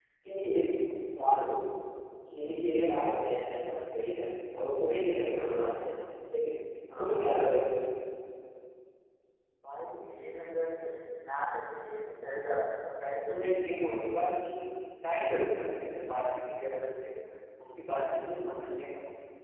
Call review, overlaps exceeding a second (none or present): none